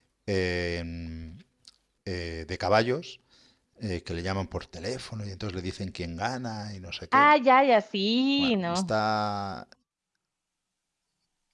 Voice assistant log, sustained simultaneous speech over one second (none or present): none